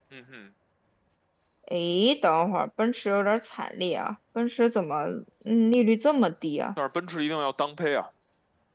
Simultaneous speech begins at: none

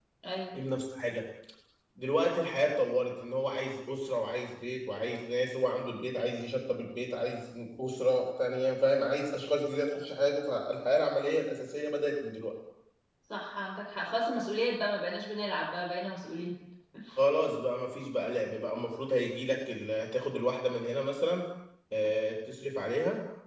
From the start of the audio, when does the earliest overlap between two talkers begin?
none

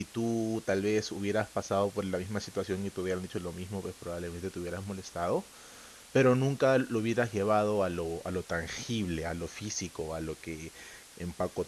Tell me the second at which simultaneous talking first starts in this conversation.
none

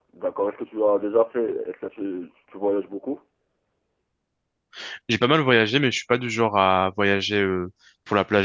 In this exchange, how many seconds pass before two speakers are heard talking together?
none

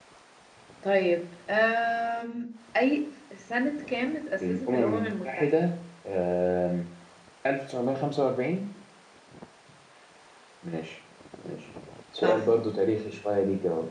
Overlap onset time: 4.4 s

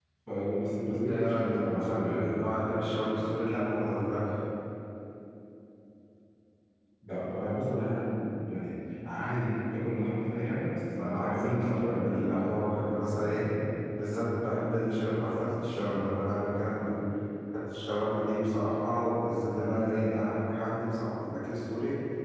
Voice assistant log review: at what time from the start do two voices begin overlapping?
0.9 s

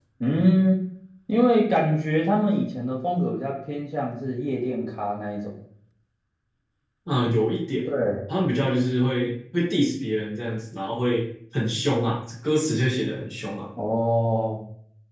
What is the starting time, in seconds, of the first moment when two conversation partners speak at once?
none

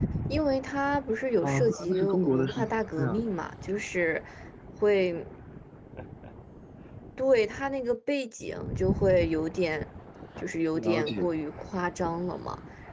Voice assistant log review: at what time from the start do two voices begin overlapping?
1.4 s

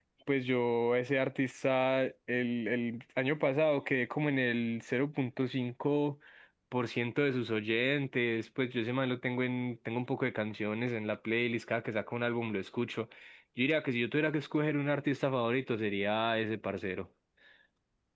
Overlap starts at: none

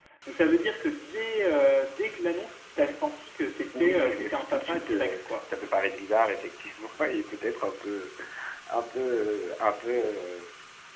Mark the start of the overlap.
3.7 s

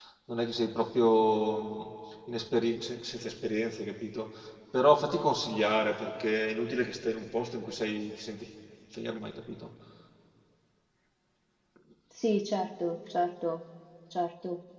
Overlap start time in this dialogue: none

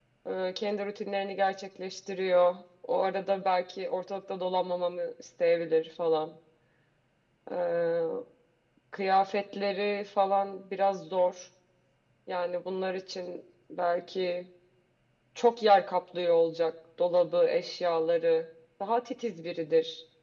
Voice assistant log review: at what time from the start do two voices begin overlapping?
none

